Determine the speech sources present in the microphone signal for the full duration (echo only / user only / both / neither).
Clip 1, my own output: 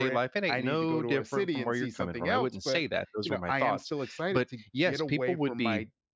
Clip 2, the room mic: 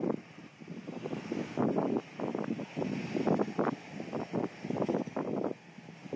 neither